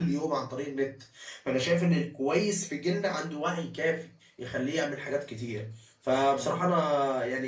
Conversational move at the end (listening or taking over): listening